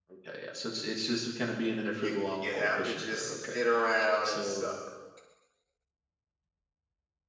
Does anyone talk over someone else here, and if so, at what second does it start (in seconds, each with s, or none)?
2.0 s